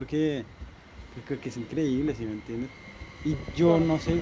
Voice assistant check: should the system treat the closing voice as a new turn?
No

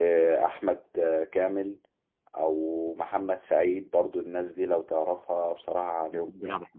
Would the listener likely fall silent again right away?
No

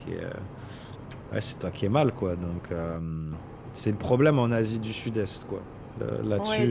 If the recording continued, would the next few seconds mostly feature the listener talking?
Yes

